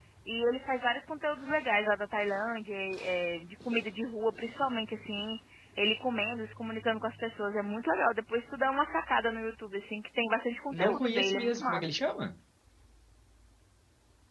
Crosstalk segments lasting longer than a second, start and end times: 10.7-11.9

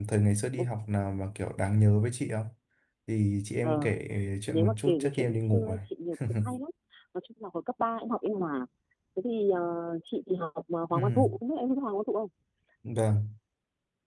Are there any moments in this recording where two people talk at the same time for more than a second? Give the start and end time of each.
4.5-5.8

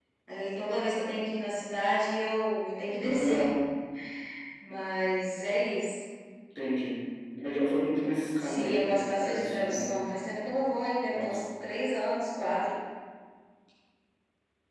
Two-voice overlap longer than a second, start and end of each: 8.4-10.0

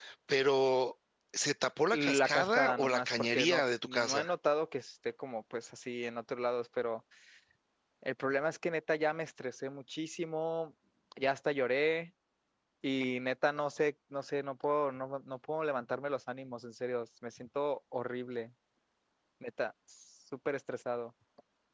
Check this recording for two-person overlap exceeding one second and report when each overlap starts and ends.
1.9-4.3

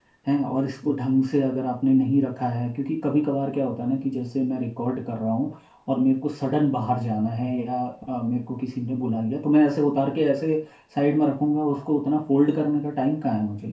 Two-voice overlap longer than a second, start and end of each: none

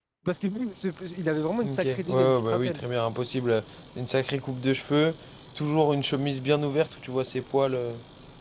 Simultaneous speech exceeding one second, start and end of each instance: 1.6-2.8

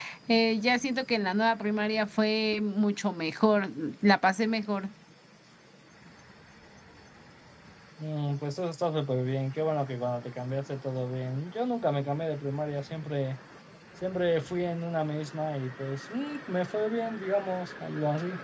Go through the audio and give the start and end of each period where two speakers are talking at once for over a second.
none

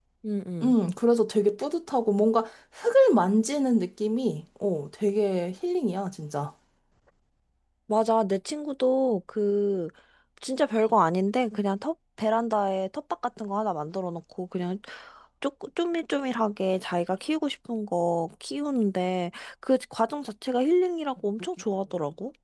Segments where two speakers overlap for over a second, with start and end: none

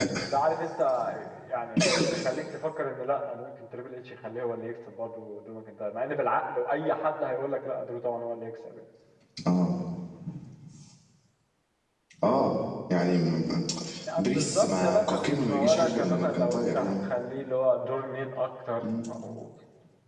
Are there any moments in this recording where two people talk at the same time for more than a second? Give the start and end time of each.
14.2-16.9

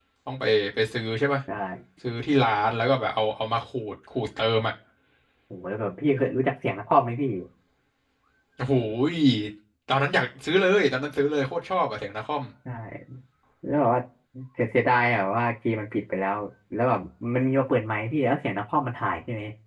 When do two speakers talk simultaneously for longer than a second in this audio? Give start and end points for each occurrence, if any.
none

